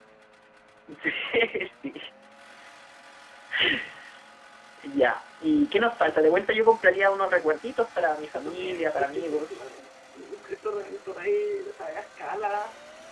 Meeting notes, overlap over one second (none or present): present